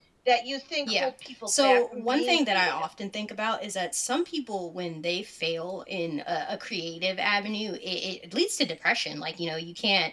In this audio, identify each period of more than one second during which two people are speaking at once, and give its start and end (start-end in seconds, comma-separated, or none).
1.6-2.9